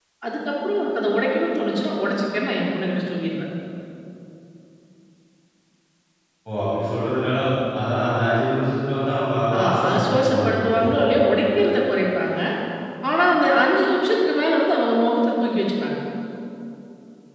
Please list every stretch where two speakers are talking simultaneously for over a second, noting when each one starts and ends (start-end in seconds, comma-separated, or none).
9.6-10.9